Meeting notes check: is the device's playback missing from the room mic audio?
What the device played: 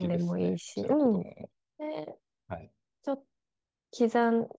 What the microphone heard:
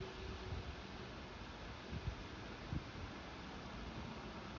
Yes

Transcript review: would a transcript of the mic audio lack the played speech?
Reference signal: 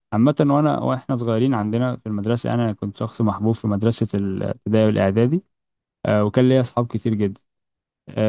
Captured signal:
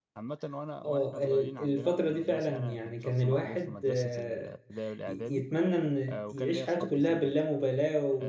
No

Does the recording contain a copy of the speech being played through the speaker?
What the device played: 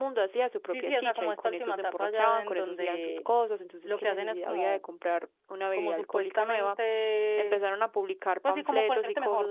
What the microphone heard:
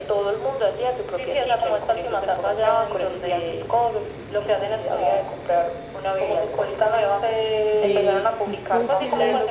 Yes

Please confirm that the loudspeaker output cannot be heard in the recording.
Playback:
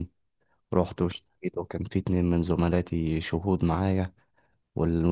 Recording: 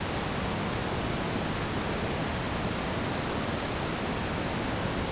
Yes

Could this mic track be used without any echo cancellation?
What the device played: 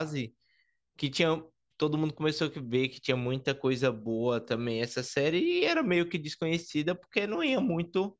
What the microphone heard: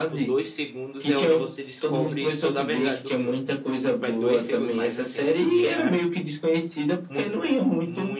No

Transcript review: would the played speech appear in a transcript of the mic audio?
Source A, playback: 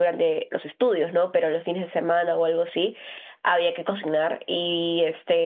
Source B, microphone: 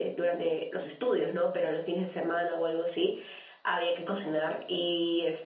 Yes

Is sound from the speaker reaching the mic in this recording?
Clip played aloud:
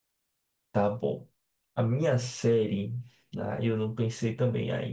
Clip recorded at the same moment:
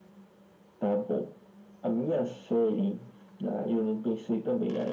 Yes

